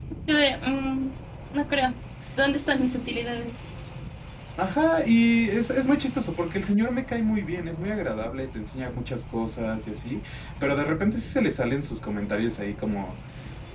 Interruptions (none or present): none